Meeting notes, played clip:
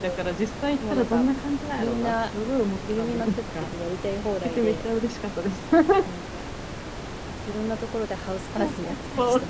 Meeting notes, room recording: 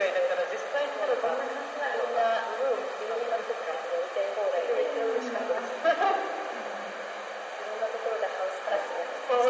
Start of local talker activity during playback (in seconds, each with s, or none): 4.7 s